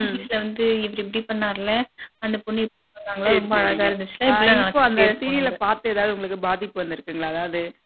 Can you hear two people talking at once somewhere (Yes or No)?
Yes